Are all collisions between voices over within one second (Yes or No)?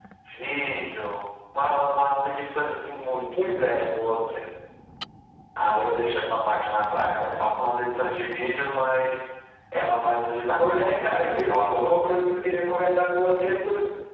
No